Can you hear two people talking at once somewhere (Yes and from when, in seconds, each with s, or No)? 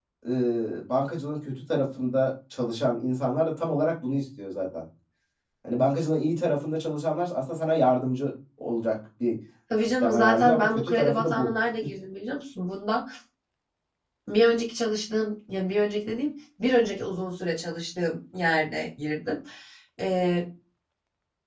Yes, from 9.7 s